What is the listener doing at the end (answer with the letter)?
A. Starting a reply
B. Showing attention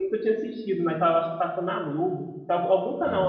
B